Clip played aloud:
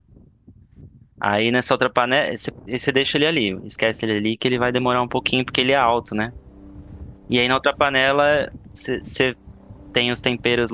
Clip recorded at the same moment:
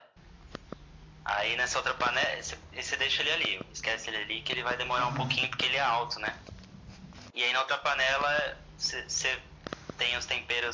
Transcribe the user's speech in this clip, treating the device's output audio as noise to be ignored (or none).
Aham,